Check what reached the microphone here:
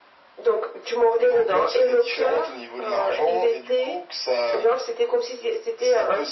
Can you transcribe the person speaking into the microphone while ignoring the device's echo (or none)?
none